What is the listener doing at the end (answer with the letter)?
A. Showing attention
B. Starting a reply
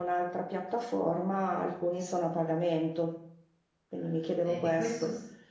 B